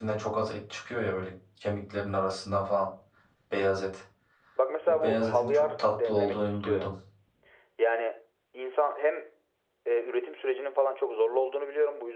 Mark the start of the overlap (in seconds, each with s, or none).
4.9 s